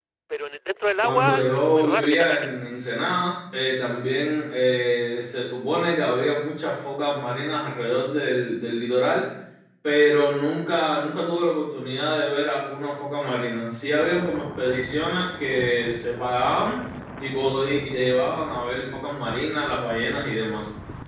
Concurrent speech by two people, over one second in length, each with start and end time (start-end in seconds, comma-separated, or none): 1.0-2.5